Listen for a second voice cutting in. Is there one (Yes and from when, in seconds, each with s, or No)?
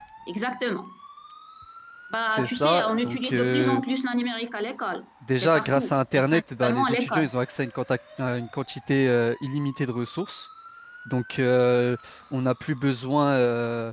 Yes, from 2.3 s